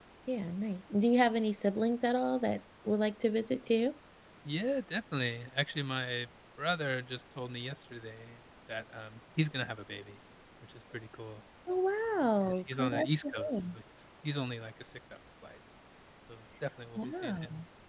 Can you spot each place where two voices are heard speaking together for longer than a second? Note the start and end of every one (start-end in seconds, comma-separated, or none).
12.4-13.7